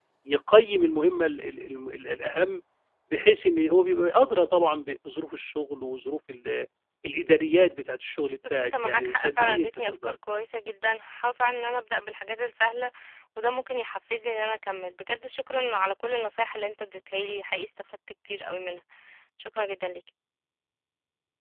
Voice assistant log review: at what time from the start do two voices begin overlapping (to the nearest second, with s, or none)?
8 s